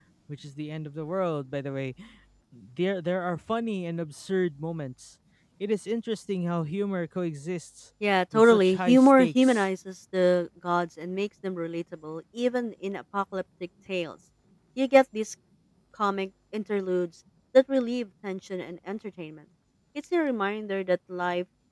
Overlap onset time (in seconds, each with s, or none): 8.3 s